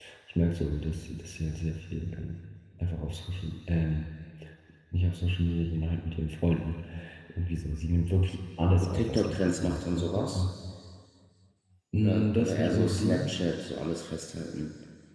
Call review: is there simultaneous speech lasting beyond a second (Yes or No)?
Yes